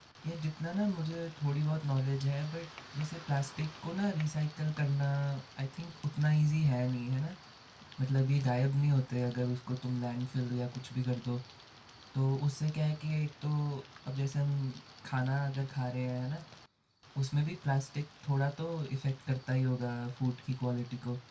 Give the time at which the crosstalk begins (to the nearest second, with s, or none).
none